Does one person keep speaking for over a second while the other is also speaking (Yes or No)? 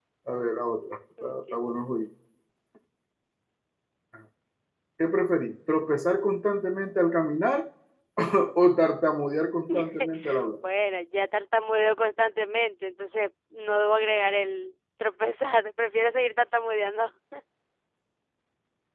No